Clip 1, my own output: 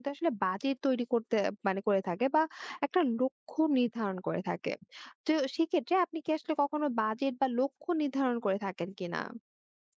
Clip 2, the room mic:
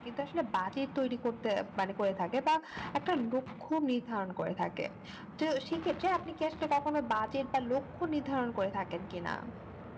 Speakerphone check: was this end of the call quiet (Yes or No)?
Yes